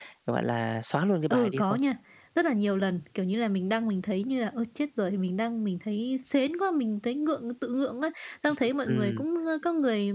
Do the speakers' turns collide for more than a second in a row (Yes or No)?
No